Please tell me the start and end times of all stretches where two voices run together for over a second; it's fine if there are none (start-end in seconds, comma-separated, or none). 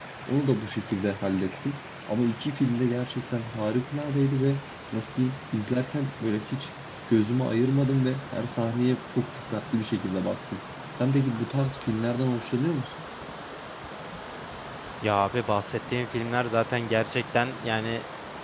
none